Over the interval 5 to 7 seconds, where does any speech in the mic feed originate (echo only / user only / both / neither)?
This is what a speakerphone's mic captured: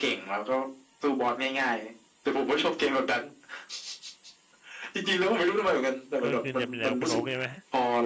both